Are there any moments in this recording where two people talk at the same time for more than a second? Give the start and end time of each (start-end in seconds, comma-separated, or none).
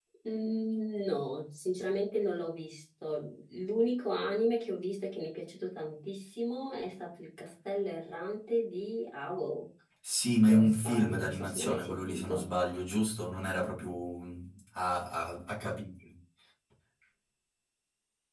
10.5-12.5